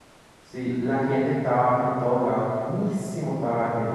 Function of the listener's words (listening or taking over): listening